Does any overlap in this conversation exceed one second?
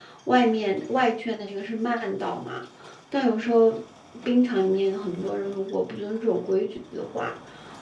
No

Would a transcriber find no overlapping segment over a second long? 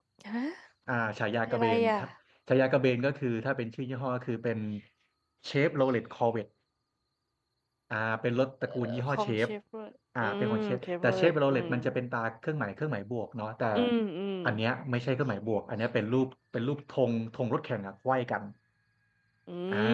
No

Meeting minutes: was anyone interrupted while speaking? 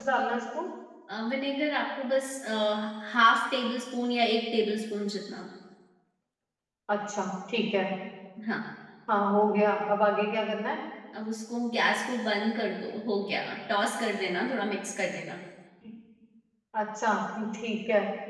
No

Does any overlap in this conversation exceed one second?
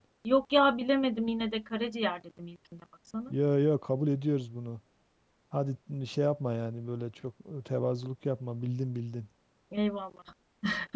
No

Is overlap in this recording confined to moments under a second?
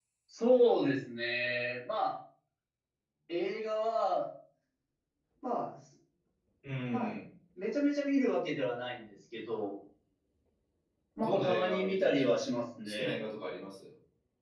No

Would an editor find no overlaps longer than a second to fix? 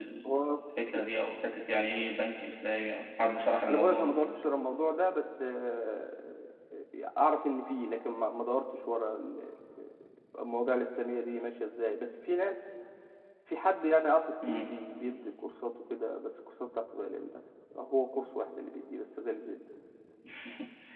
Yes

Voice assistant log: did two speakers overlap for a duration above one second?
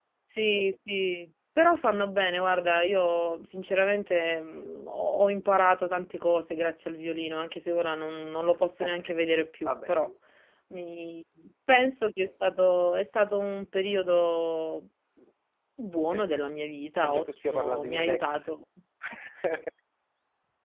Yes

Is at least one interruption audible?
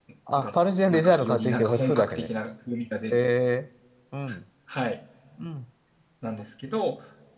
Yes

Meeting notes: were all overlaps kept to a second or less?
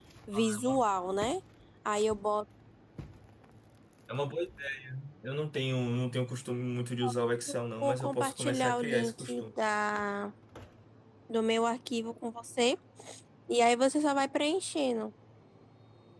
No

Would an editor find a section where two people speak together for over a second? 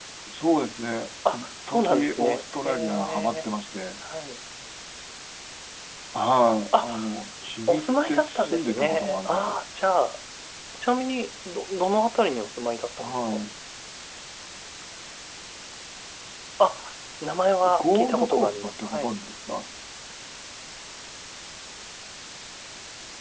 Yes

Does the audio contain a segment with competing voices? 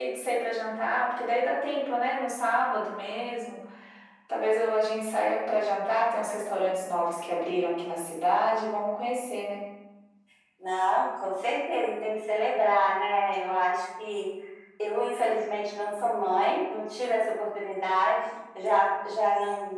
No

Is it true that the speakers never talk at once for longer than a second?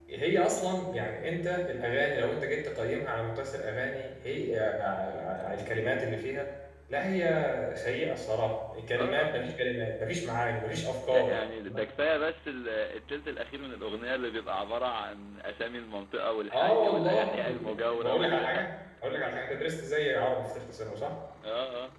No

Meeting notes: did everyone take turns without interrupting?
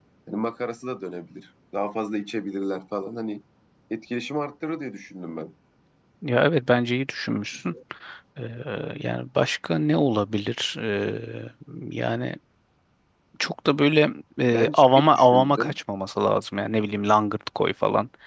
No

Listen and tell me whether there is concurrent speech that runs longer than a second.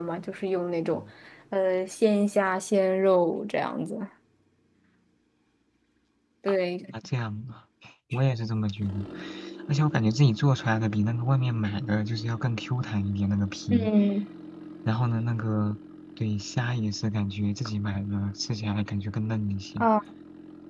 No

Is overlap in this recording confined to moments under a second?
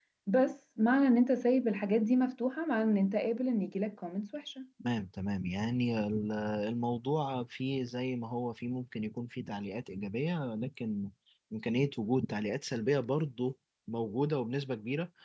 Yes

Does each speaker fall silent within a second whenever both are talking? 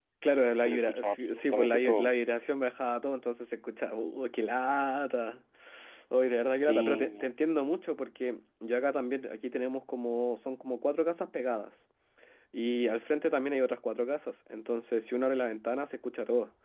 No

